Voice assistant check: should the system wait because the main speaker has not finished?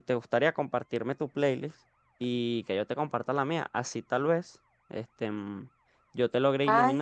Yes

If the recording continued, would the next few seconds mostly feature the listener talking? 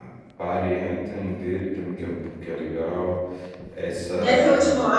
Yes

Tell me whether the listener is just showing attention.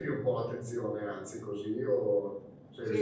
No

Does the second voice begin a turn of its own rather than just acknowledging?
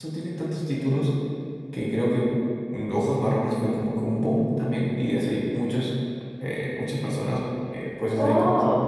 Yes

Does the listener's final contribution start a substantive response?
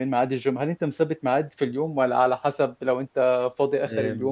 Yes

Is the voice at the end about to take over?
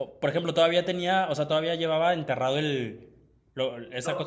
No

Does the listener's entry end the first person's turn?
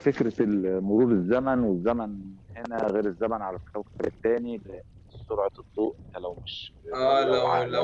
Yes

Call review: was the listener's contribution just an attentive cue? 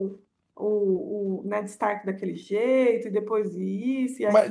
No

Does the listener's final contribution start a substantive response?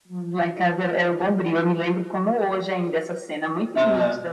No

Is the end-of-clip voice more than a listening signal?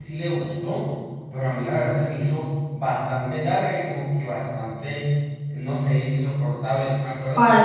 No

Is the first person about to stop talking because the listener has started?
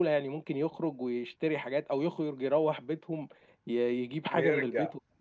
Yes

